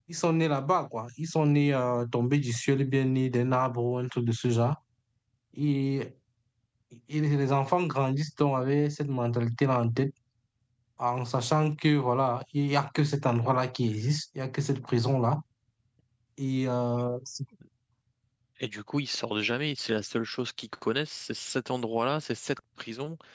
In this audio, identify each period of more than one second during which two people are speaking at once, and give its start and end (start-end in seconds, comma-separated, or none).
none